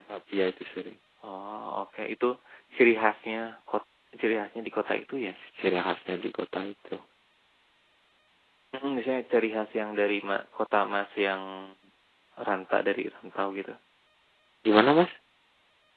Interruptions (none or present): none